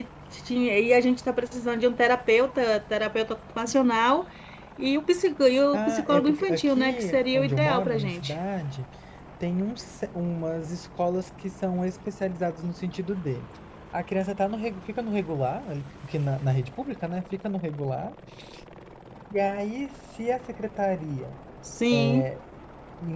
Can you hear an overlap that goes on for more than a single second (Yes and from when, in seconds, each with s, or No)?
Yes, from 5.7 s